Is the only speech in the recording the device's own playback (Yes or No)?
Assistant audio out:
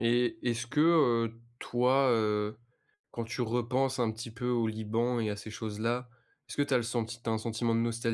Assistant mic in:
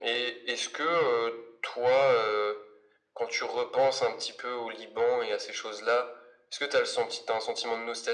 Yes